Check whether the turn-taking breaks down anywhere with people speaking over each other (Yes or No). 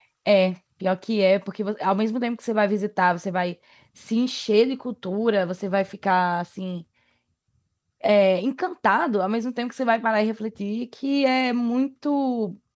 No